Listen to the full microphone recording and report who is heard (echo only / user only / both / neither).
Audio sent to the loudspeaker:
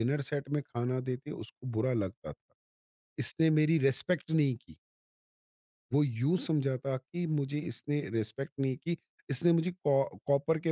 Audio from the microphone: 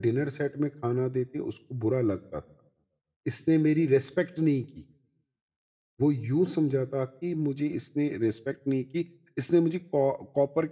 echo only